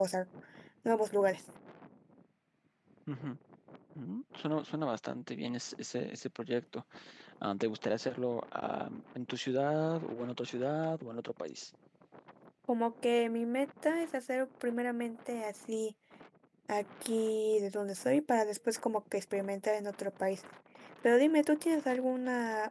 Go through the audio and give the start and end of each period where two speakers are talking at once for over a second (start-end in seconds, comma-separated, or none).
none